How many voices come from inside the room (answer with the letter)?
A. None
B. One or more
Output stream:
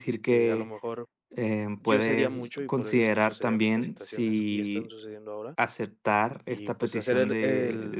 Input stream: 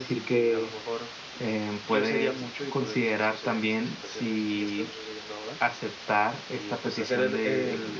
A